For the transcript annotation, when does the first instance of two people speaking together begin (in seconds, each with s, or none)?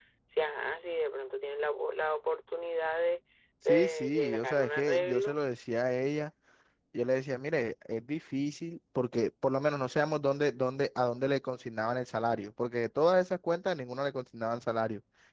3.7 s